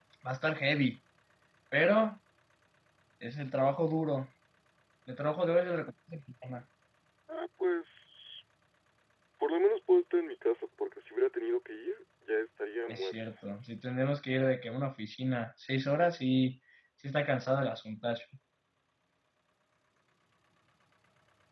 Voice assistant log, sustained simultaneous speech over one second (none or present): none